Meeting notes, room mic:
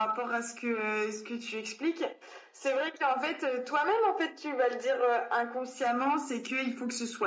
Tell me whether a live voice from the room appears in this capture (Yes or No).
No